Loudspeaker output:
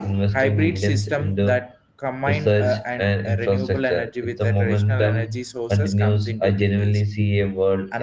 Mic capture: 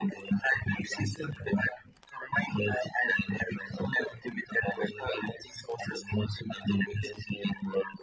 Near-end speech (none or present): none